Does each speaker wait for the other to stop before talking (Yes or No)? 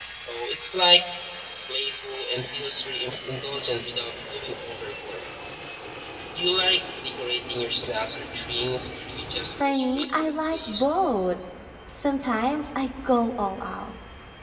No